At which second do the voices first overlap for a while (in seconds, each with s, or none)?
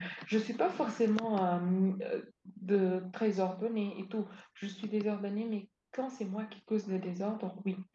none